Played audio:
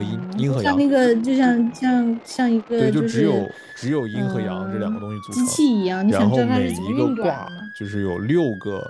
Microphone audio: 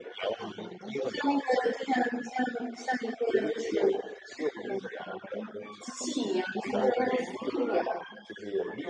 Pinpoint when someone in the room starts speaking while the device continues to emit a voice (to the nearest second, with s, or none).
none